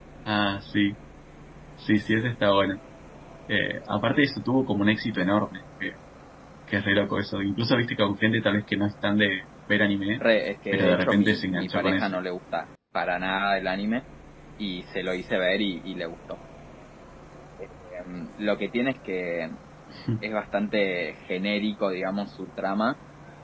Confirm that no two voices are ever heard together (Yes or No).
No